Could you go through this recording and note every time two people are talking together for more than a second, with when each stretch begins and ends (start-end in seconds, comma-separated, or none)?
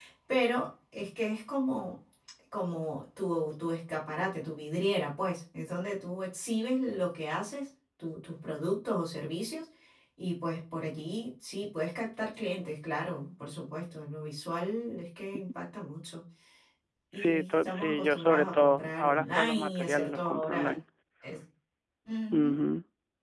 17.1-20.7